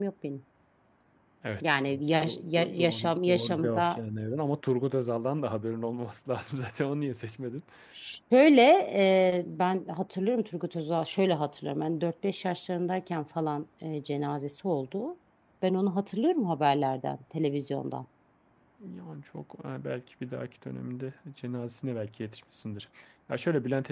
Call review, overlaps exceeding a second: present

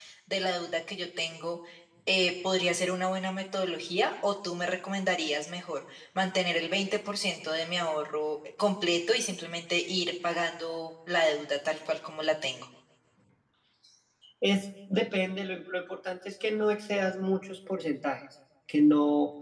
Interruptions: none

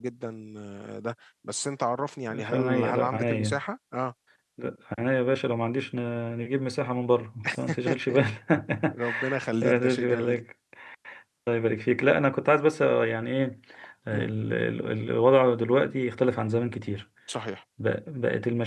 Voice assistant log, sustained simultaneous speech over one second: present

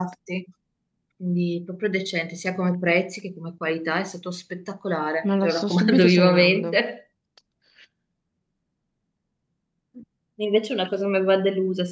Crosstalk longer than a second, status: present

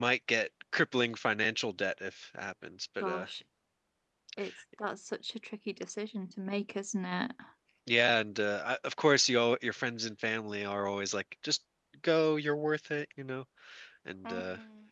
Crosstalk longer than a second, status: none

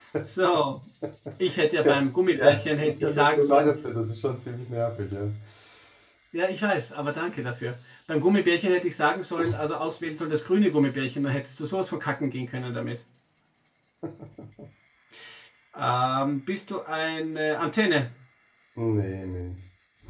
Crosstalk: present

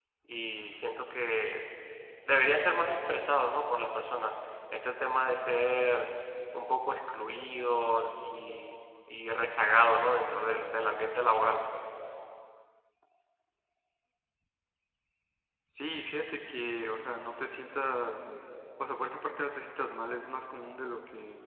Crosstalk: none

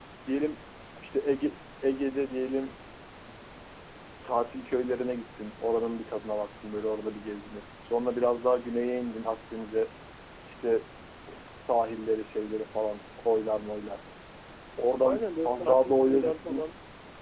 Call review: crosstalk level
present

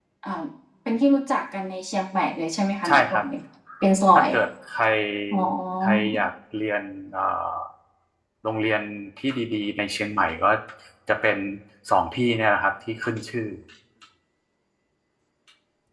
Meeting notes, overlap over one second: none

